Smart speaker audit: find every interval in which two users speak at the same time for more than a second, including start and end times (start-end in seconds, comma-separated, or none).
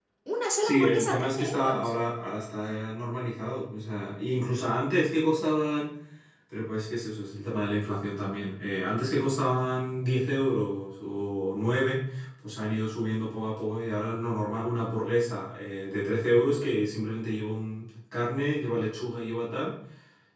0.6-1.9